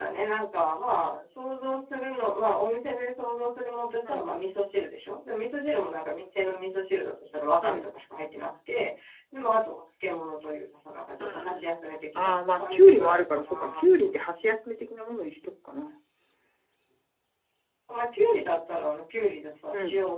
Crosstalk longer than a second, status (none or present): present